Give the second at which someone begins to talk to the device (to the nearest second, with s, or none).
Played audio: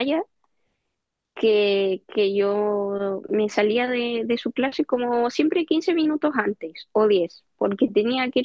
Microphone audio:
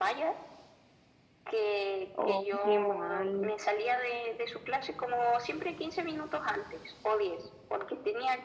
2 s